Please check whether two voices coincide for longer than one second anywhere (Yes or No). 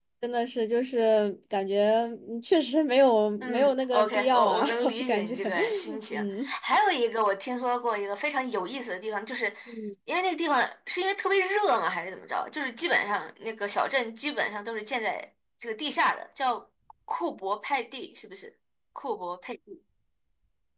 Yes